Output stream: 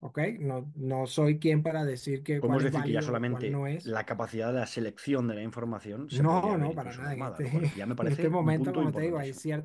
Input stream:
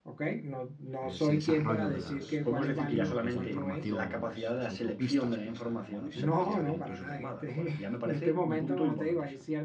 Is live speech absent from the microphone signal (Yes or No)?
No